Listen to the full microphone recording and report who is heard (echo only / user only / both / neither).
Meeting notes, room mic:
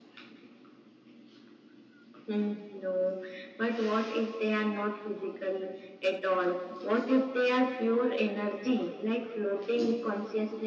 echo only